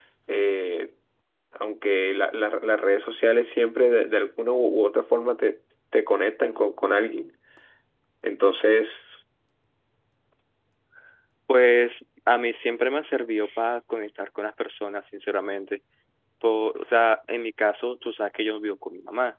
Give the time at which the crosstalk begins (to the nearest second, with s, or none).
none